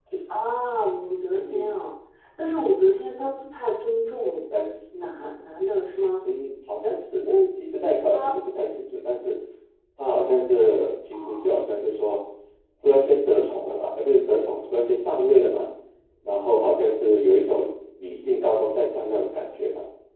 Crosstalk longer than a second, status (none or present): none